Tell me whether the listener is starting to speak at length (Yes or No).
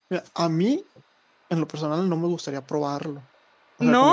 No